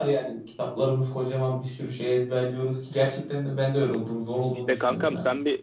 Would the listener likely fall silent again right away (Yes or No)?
No